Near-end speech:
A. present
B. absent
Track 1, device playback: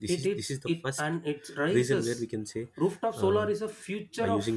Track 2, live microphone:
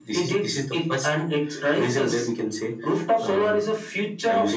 B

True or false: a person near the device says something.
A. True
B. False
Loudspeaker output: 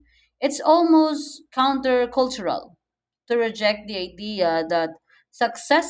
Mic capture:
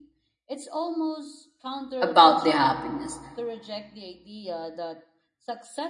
A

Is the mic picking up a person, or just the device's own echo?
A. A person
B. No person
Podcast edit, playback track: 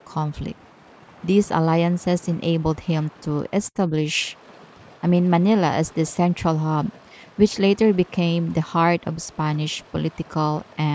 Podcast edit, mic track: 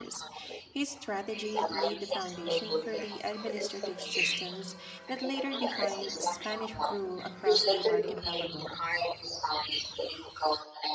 A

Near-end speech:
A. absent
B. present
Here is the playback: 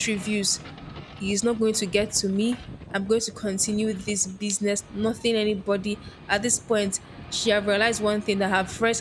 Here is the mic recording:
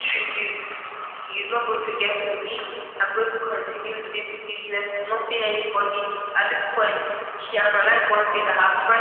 A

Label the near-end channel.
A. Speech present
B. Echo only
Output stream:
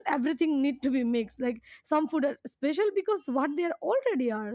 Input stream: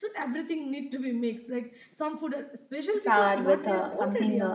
A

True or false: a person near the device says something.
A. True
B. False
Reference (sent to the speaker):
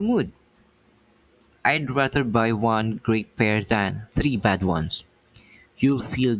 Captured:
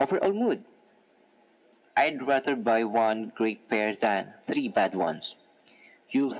B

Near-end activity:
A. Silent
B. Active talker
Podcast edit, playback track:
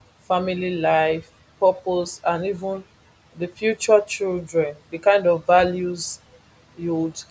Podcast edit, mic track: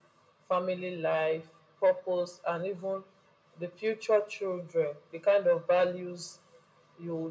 A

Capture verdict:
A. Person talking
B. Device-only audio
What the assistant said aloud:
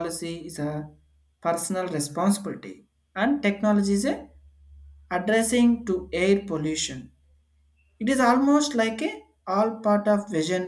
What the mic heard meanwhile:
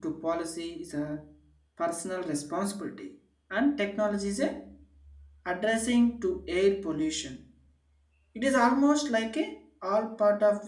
B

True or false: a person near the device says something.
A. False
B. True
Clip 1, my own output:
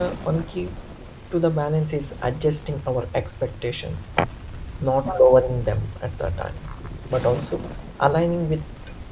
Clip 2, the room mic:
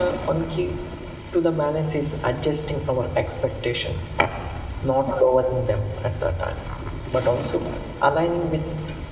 A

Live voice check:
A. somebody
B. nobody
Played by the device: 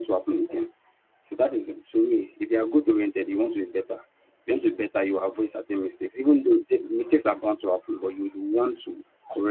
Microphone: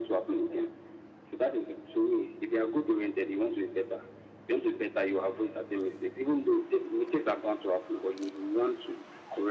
B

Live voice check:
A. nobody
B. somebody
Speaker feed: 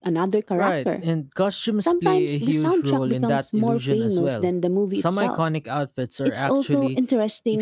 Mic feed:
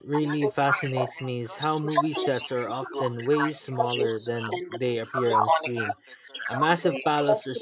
B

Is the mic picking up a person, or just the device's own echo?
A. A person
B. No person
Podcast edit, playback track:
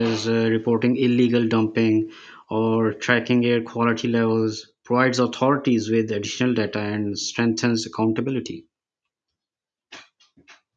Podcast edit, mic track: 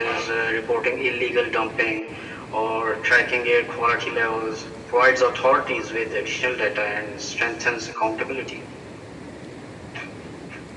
B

